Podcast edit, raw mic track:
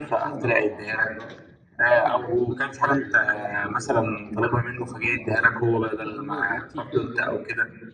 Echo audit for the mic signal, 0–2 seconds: both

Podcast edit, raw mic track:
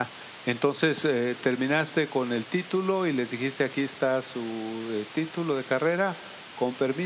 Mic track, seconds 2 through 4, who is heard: user only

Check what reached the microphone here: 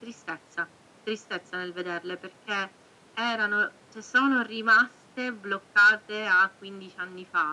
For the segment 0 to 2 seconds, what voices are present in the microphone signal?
echo only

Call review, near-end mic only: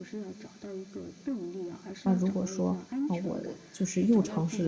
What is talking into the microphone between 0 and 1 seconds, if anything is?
echo only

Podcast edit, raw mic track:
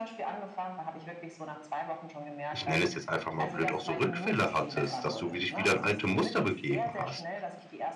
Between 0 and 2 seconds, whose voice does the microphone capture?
echo only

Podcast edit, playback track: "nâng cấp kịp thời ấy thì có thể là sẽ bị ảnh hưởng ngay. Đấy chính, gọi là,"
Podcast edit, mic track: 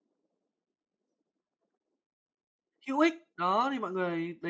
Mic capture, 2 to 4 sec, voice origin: user only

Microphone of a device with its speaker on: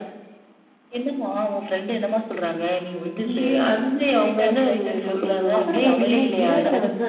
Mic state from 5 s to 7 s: both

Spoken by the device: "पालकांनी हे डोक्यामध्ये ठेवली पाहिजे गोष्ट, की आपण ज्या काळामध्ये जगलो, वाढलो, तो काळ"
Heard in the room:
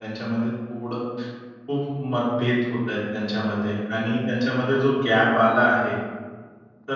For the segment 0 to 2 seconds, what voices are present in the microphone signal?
user only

